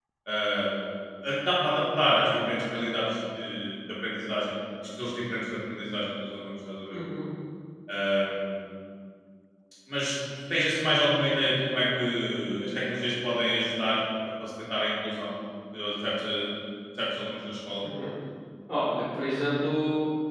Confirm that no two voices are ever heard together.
Yes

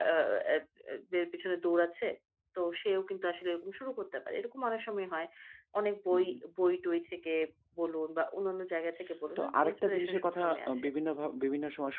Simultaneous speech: Yes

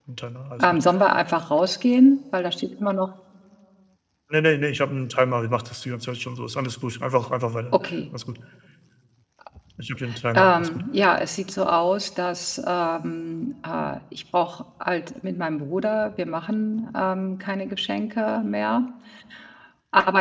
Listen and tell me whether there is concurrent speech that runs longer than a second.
No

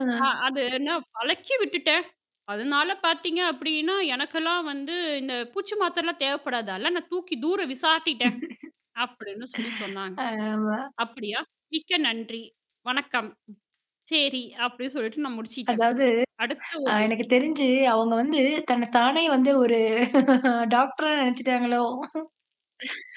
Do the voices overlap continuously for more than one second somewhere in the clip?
No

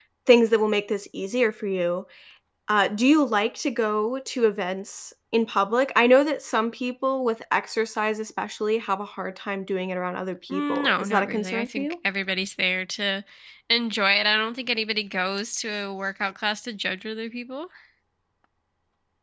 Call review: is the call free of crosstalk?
No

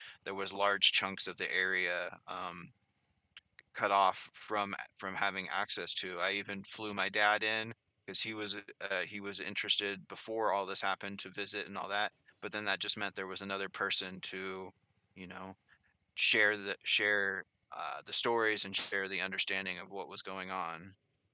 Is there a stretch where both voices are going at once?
No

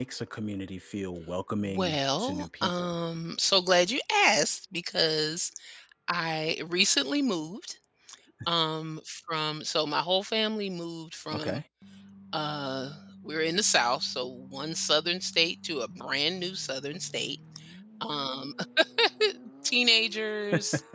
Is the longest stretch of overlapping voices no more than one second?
No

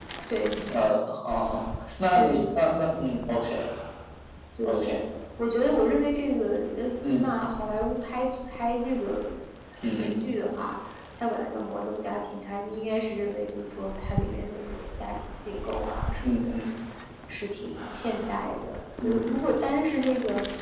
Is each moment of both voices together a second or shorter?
Yes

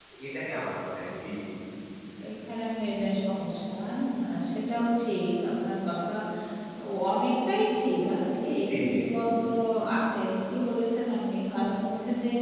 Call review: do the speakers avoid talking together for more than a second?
Yes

